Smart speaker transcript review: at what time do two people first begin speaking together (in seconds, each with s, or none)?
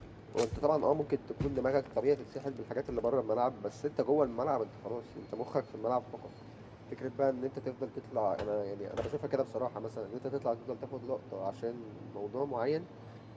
none